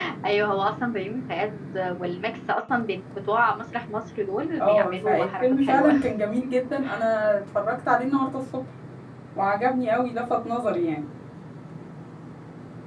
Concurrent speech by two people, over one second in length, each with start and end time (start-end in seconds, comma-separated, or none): 4.6-5.9